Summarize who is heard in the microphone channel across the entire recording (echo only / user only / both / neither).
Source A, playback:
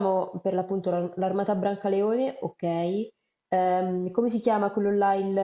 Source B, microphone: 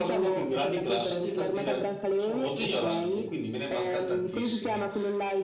both